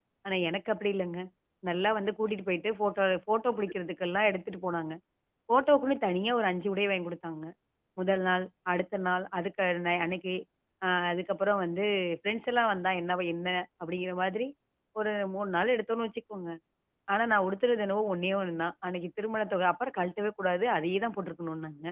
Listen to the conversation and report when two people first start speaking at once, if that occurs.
none

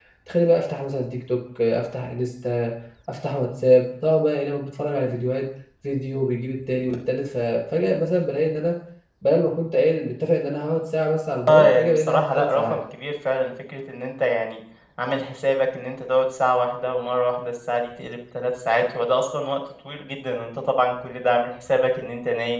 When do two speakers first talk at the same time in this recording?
11.5 s

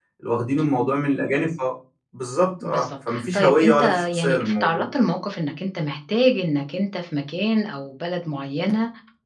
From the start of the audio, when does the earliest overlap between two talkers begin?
2.6 s

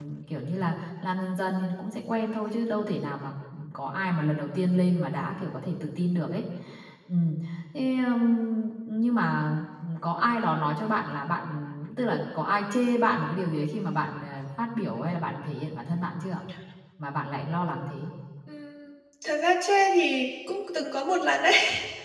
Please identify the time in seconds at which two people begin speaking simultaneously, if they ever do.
none

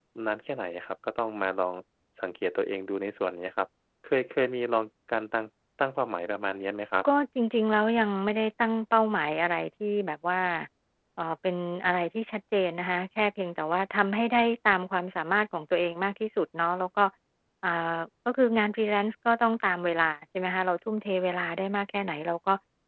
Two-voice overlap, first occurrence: none

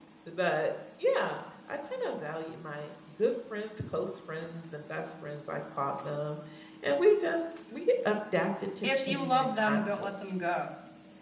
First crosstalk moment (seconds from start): 8.8 s

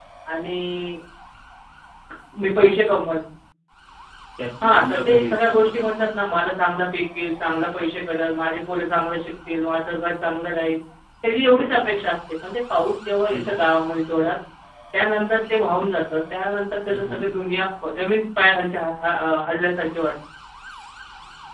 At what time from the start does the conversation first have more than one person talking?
4.6 s

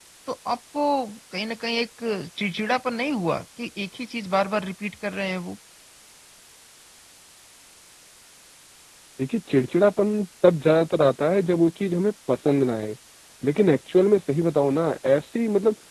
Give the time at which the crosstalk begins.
none

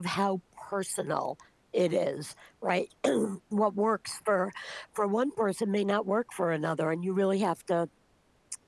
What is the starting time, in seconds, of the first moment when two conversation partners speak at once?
none

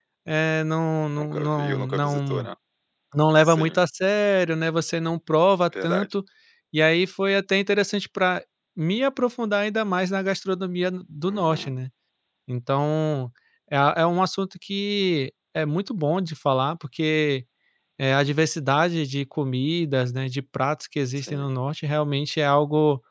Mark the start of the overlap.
1.2 s

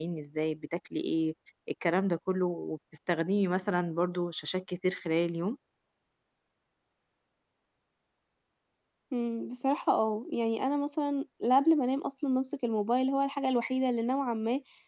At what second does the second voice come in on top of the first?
none

